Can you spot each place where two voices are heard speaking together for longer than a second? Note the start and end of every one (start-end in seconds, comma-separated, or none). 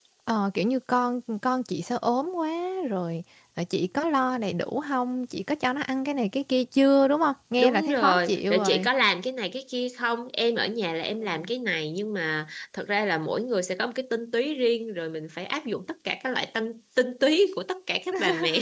7.6-8.9